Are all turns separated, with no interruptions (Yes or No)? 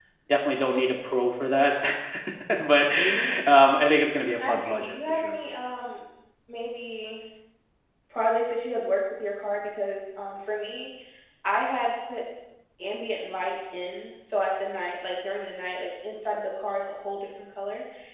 No